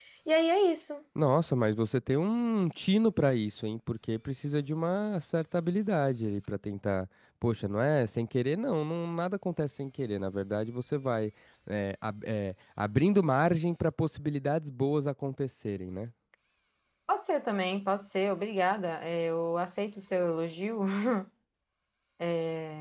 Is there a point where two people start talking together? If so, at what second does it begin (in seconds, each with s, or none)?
none